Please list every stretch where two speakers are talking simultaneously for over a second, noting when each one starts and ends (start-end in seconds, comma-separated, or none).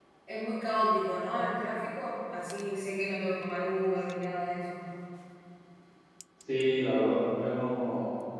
none